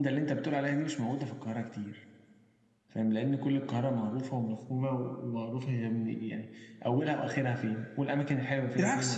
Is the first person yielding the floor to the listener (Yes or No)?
Yes